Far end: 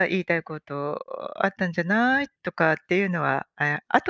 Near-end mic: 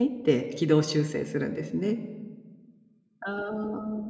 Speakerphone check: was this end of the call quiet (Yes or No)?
No